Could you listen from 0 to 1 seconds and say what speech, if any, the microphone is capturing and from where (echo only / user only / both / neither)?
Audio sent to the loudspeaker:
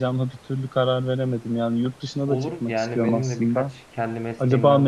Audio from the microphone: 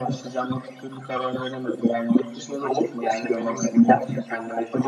echo only